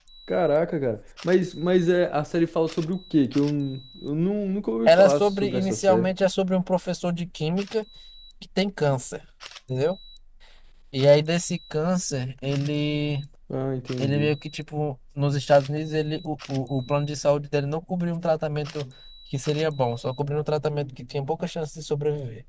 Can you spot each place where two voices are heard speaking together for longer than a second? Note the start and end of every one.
4.9-6.1

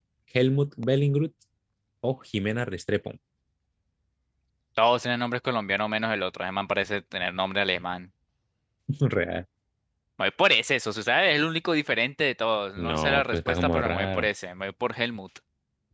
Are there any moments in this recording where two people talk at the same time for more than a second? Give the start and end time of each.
12.8-14.3

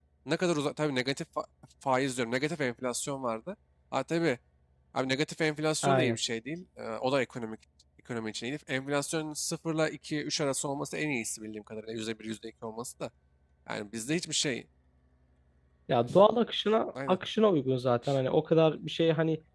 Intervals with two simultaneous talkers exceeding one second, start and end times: none

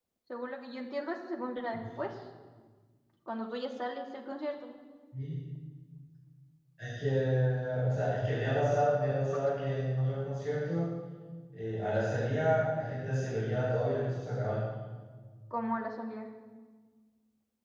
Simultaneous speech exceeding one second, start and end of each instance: none

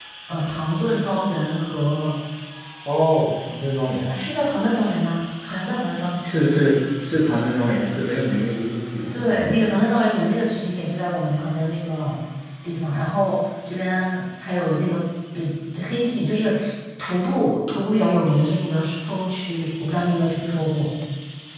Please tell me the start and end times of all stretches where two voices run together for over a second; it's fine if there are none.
none

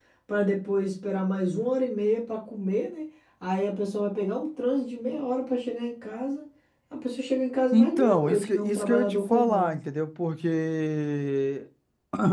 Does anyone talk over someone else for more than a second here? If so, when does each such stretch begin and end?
7.7-9.7

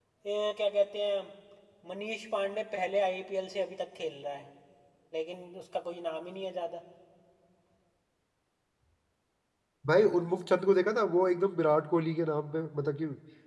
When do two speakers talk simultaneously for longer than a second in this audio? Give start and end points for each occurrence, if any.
none

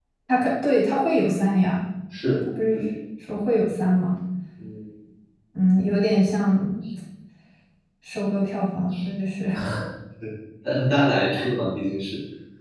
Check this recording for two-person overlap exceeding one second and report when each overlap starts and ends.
none

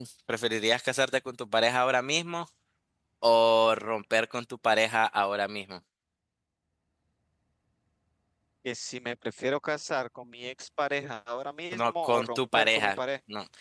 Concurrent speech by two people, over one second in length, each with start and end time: 11.7-13.0

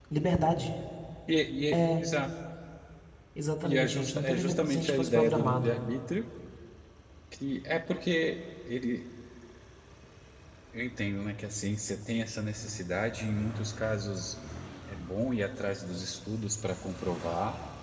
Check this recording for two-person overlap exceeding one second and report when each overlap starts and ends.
3.6-5.7

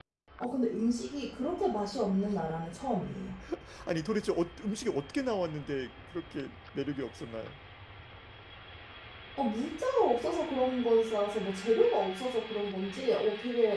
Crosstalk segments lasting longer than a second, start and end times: none

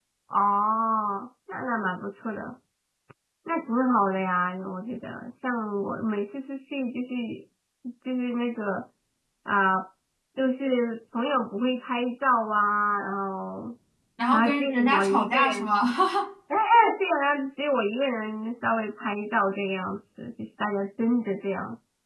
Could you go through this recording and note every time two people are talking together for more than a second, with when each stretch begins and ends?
14.3-15.7

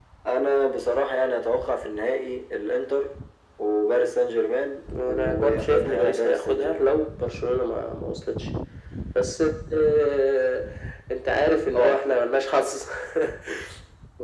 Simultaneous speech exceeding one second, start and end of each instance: 5.0-6.9

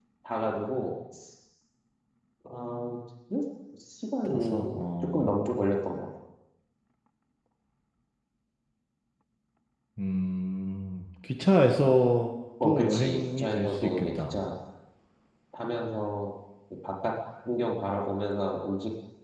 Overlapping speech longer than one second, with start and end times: 12.6-14.3

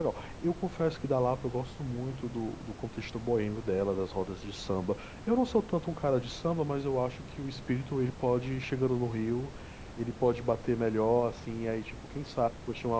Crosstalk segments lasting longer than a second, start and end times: none

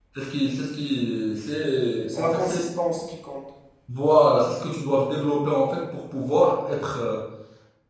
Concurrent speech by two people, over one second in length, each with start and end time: none

